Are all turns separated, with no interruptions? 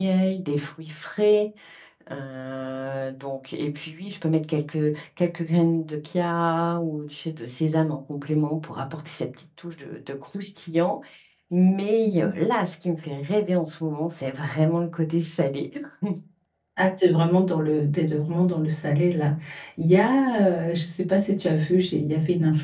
Yes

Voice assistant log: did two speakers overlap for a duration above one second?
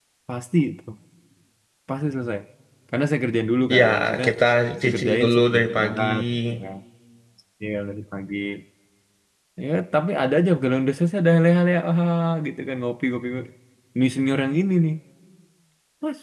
Yes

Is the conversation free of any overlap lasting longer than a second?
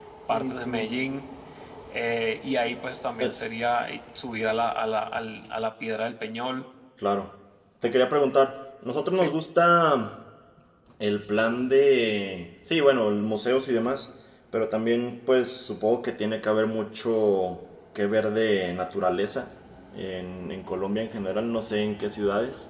Yes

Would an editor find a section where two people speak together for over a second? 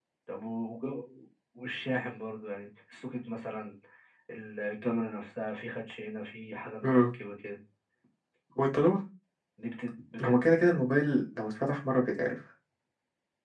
No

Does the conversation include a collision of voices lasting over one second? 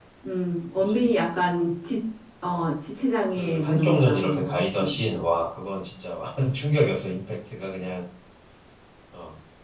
Yes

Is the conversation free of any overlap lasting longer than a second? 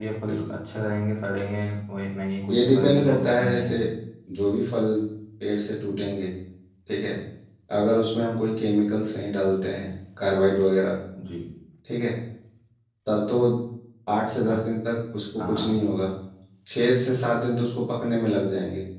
No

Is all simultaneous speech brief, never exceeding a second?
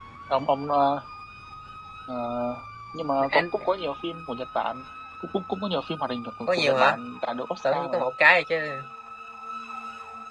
Yes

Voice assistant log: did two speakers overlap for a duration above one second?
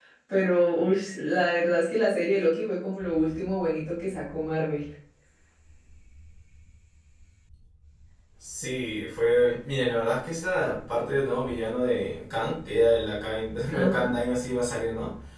No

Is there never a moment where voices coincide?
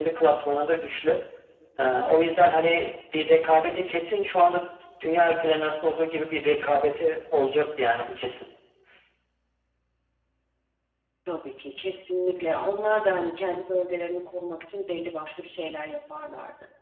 Yes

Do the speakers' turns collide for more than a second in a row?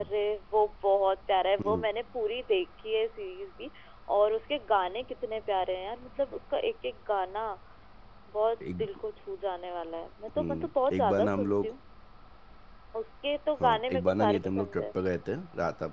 Yes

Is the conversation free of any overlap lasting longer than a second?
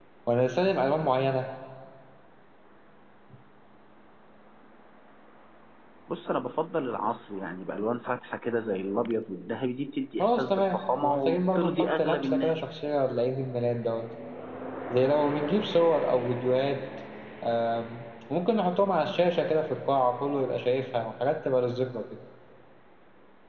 No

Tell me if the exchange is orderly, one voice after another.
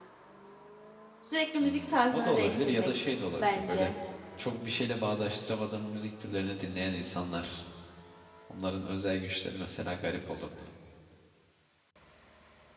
No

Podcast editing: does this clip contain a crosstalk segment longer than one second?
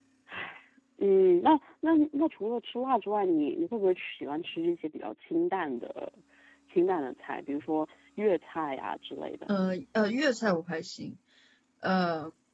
No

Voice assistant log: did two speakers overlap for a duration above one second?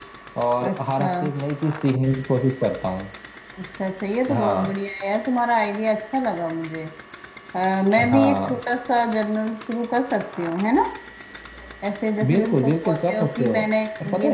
Yes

